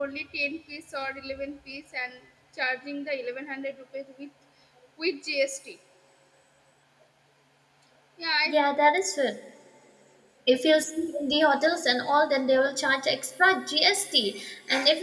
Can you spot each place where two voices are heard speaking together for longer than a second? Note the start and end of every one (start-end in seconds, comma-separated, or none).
none